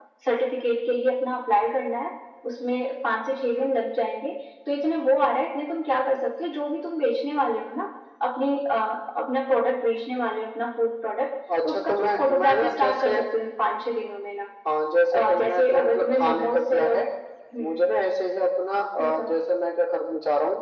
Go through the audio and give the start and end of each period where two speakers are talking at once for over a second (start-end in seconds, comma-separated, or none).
11.6-13.2, 15.1-17.0